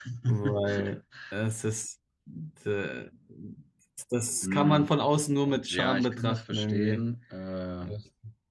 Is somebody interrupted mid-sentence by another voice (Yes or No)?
Yes